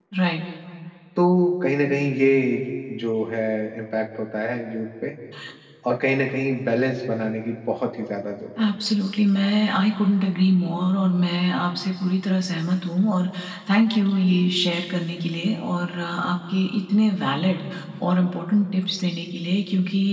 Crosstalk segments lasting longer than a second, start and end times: none

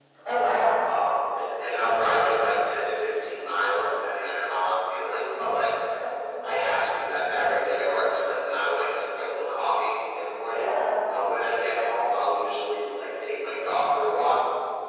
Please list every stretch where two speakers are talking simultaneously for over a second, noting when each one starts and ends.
none

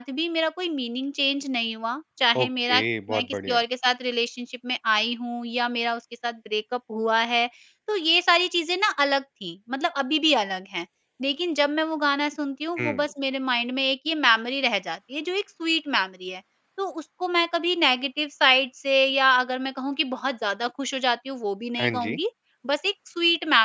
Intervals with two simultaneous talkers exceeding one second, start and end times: 2.4-3.6

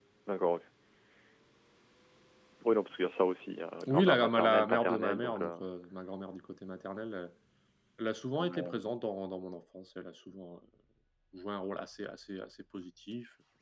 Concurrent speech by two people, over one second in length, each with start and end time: 3.9-5.5

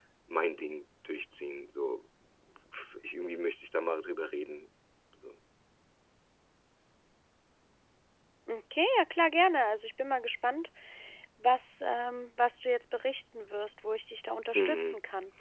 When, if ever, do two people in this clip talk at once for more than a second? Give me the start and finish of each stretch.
none

